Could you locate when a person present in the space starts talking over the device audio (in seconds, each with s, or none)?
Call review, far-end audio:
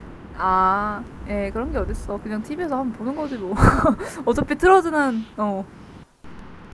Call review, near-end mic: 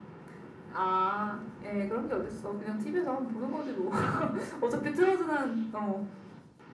none